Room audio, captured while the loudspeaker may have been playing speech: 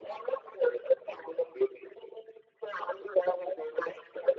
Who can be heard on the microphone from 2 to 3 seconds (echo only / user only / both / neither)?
echo only